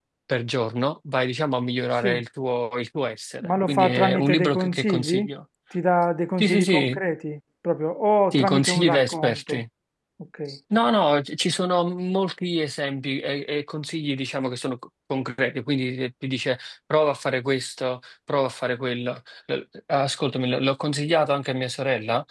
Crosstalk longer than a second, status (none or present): present